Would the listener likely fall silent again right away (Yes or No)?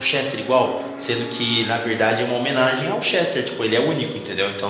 Yes